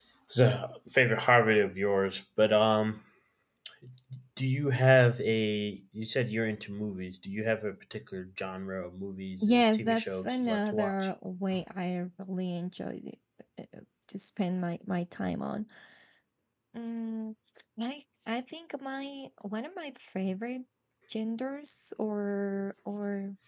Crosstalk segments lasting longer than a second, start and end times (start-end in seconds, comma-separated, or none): 9.4-10.9